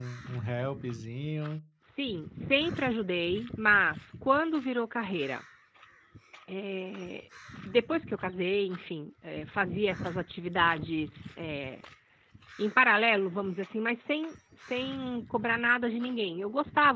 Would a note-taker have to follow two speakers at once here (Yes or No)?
No